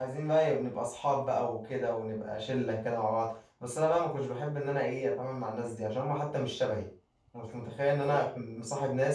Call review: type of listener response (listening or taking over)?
listening